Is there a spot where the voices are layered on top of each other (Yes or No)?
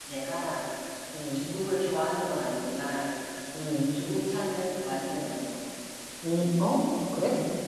No